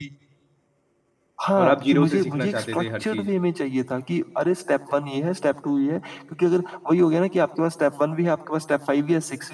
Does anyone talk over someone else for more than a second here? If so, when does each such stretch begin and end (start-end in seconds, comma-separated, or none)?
1.6-3.3